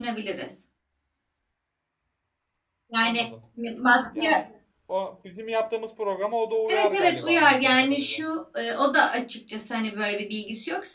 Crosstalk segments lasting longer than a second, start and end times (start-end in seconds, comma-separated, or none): 6.7-8.2